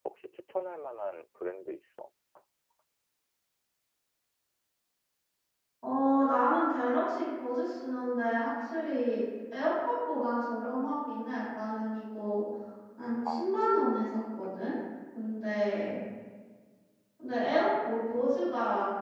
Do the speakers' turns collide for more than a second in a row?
No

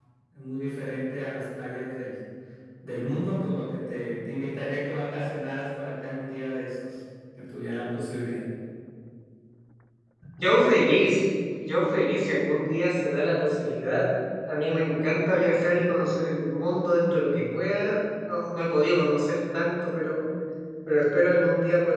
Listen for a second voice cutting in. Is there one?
No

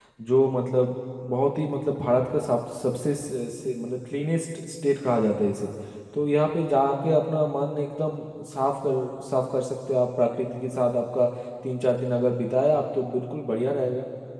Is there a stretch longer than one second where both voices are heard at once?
No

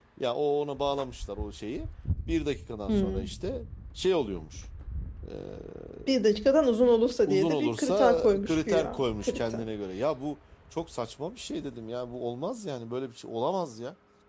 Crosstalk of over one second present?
Yes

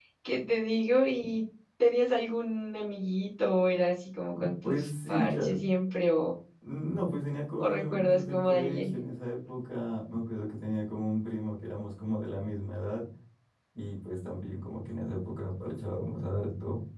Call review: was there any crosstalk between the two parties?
Yes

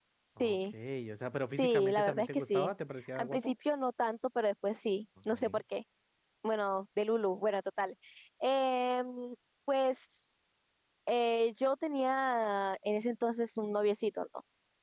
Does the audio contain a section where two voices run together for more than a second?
Yes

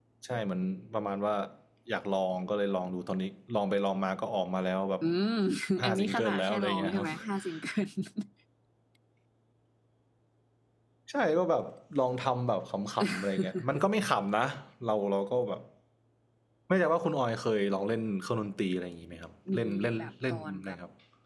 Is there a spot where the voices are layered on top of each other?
Yes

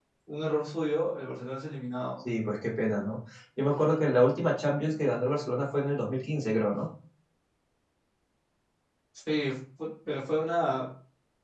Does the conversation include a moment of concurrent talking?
No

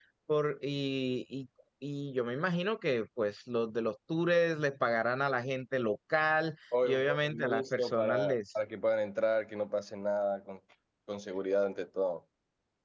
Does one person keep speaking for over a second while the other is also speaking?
Yes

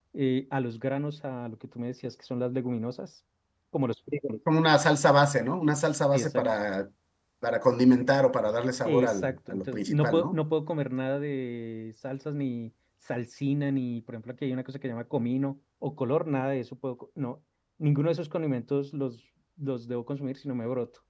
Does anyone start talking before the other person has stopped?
Yes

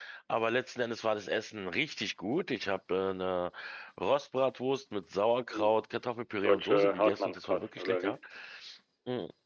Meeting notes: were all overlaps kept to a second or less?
No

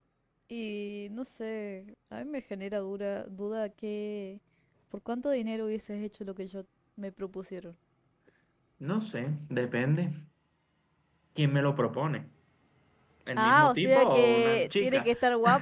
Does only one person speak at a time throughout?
No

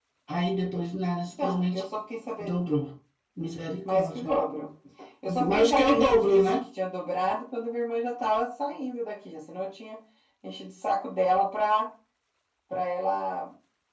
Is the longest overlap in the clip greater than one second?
Yes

